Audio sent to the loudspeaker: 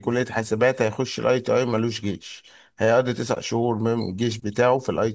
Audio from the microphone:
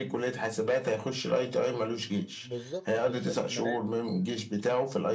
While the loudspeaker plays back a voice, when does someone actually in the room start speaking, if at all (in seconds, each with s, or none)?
2.3 s